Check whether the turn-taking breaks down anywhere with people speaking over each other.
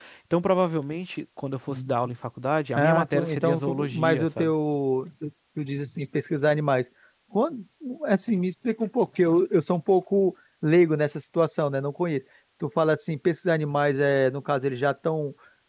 Yes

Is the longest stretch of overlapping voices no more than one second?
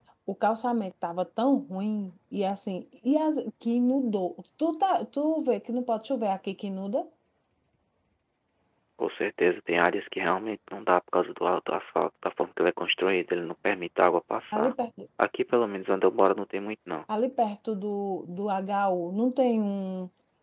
Yes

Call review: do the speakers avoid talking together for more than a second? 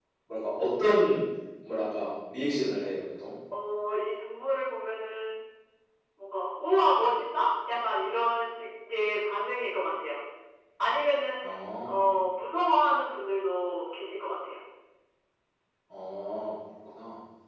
Yes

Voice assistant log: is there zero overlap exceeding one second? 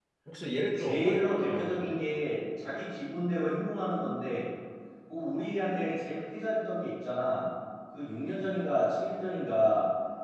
No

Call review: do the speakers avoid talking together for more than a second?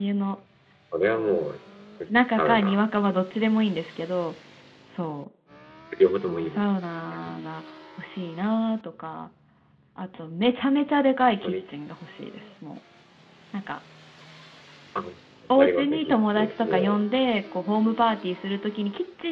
No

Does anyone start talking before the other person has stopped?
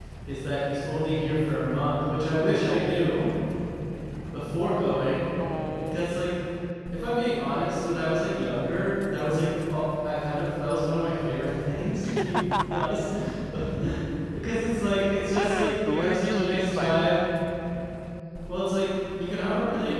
Yes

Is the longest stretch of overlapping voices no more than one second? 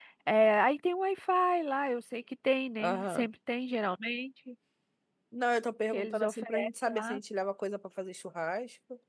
No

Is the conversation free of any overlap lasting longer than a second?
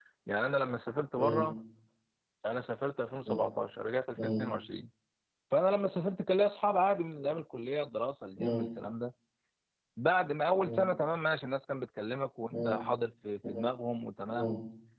Yes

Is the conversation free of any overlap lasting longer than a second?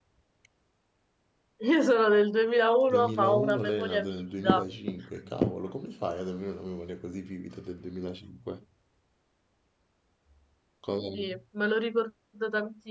No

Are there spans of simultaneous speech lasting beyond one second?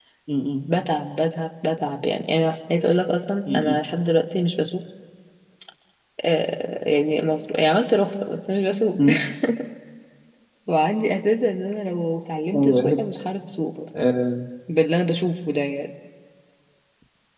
No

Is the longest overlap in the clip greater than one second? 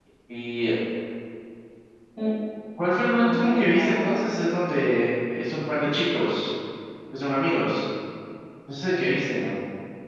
Yes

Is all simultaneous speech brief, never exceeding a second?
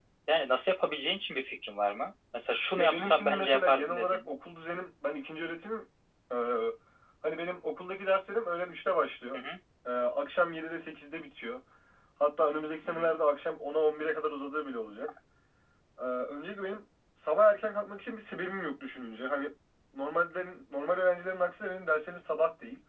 No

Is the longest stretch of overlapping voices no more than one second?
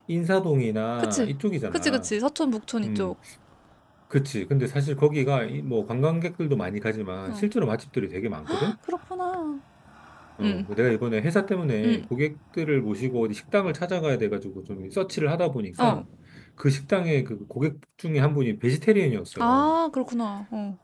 Yes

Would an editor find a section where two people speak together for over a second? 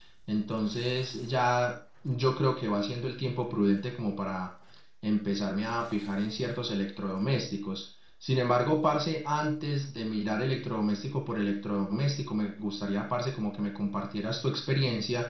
No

